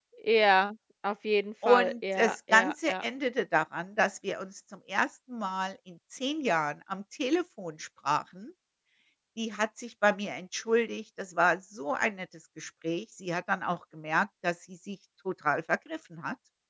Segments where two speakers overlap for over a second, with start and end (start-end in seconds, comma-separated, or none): 1.6-3.0